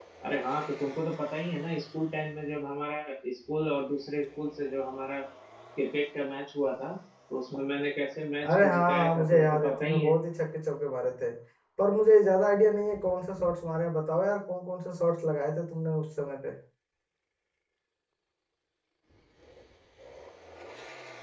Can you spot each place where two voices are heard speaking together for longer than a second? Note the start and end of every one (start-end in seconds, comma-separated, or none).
8.5-10.1